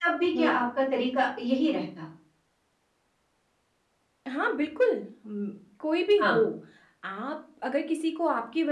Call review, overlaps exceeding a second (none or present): none